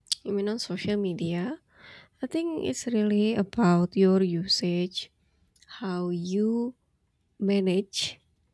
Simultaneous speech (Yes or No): No